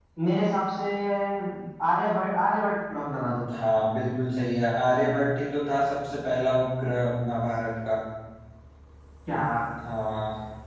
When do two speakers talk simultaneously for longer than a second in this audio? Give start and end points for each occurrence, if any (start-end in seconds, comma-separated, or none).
none